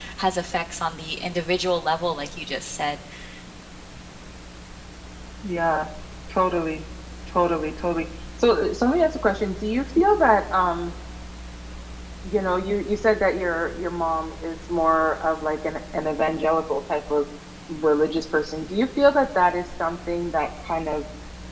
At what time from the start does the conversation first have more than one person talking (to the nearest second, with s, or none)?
none